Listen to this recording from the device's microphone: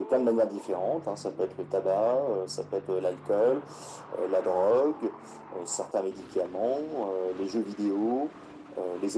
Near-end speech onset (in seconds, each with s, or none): none